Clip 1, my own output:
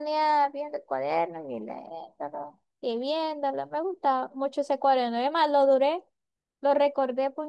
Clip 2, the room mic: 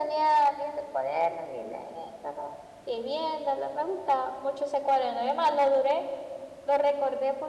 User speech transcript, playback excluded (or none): none